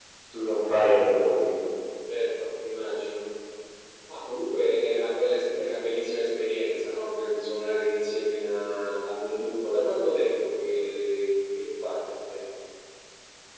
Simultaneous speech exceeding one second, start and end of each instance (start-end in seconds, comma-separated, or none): none